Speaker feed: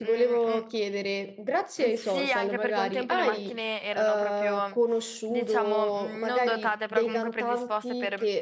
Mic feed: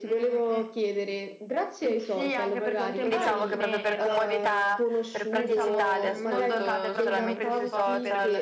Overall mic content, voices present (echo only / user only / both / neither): both